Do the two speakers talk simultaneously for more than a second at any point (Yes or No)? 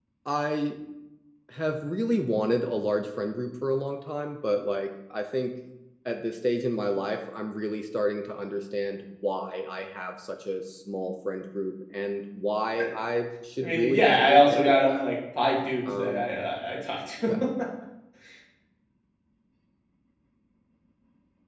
Yes